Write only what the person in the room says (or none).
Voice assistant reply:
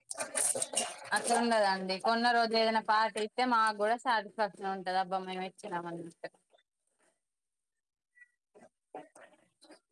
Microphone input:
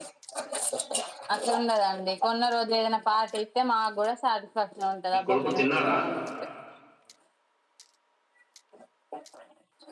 మీ కొడుకు తిన్నాడ